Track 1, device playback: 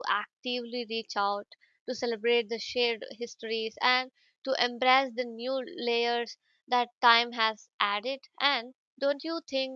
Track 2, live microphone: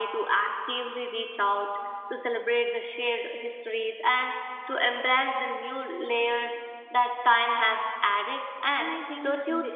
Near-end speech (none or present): present